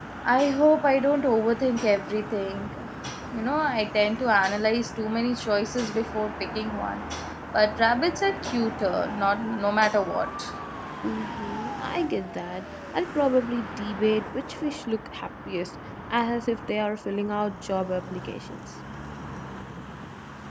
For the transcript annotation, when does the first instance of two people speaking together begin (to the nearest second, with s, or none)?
none